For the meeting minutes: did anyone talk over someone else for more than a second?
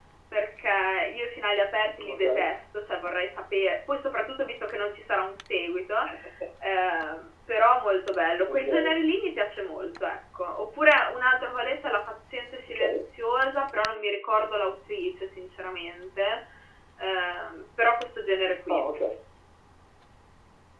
No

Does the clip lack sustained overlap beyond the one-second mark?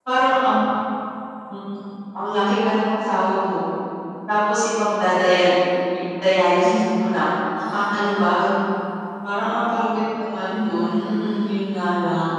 Yes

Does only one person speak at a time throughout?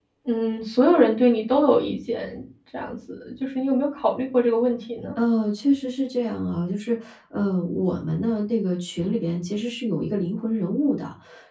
Yes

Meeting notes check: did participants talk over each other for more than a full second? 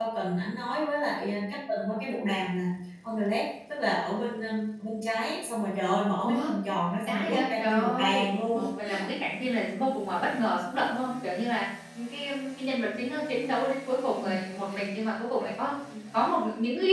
Yes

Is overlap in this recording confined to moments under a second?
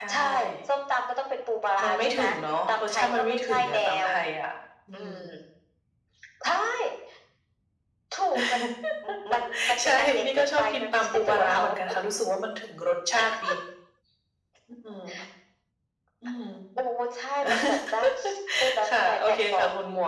No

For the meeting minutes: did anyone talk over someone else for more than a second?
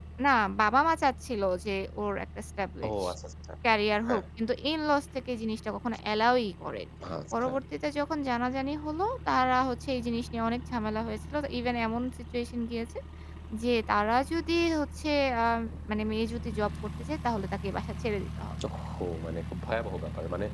No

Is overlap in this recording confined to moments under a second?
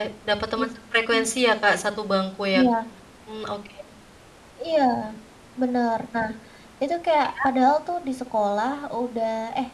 Yes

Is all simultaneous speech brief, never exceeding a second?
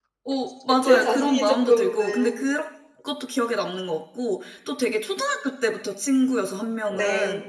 No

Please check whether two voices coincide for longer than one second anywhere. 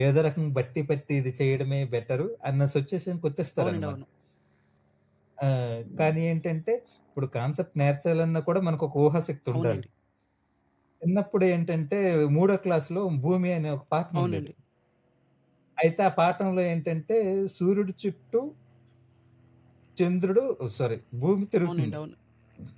No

